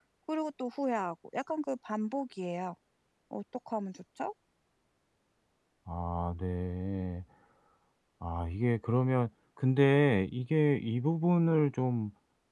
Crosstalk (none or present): none